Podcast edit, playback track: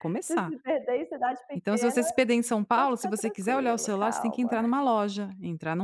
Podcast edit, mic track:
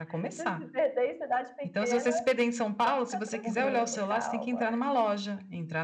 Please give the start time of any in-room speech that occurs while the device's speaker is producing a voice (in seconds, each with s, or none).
3.4 s